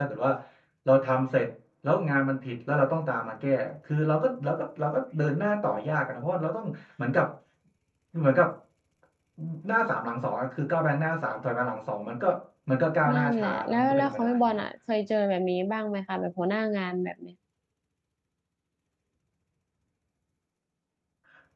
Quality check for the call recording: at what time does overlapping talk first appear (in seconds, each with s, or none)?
13.1 s